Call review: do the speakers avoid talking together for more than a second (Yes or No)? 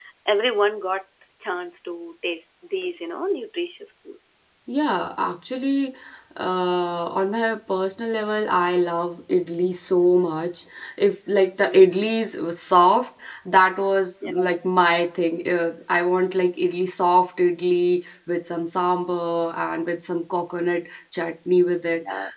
Yes